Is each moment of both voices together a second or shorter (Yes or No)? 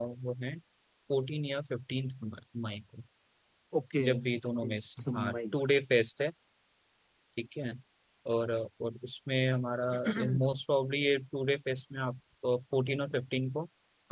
No